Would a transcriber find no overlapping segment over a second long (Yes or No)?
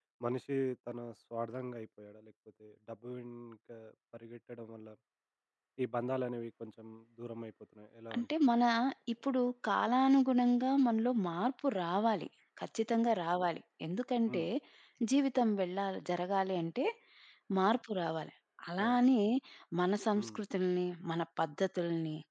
Yes